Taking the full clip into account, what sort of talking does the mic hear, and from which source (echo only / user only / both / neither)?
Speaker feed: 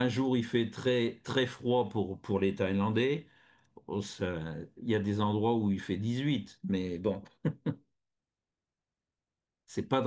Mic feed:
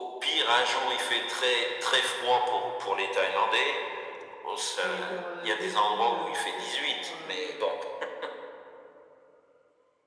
both